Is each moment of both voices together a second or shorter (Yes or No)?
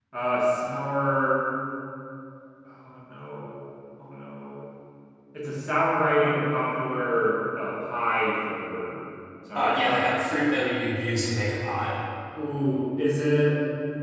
Yes